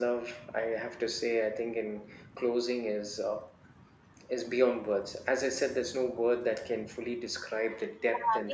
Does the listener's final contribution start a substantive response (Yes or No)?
Yes